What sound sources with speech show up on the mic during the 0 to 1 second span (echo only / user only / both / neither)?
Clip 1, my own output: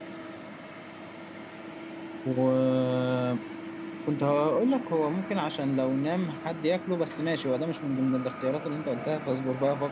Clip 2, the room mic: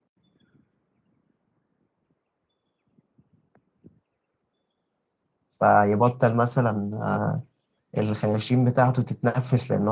neither